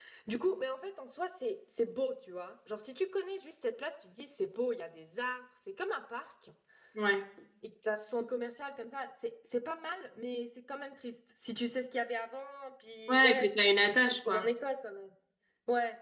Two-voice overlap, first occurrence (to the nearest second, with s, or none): 13 s